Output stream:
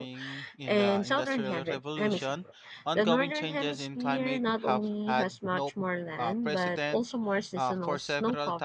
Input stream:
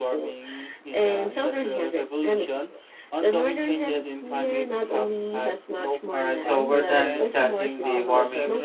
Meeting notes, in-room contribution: present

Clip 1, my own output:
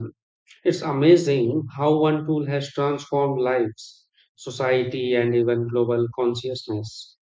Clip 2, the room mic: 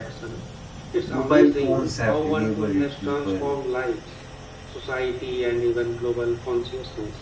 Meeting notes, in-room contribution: present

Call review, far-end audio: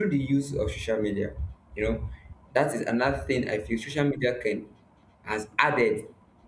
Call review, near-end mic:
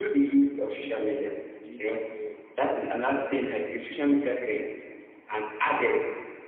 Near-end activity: present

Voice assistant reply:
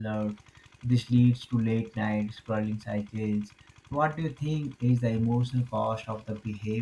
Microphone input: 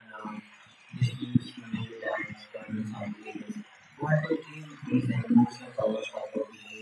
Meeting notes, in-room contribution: none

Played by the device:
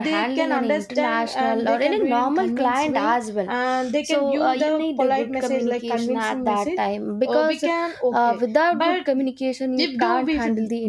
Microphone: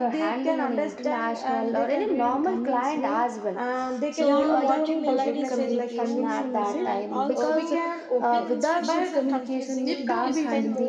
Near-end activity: present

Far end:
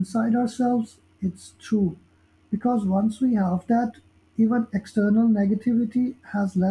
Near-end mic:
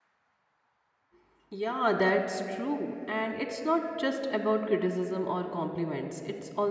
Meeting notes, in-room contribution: present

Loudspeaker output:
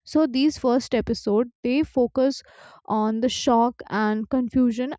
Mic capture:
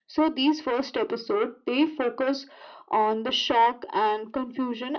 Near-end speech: none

